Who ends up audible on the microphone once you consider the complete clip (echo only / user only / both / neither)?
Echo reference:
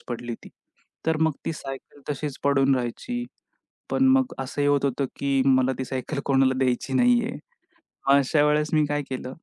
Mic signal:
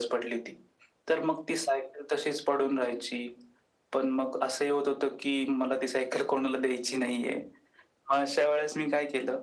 echo only